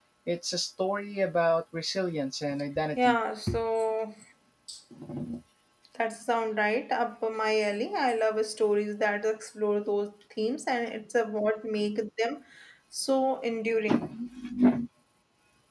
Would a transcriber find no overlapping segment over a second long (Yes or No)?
Yes